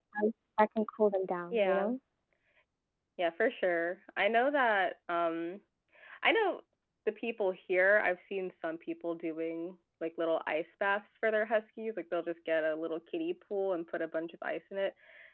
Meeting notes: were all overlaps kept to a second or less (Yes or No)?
Yes